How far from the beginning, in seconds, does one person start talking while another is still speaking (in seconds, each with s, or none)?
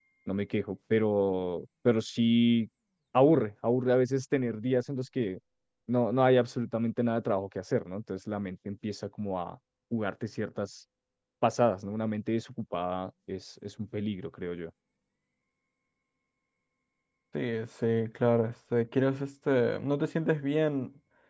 none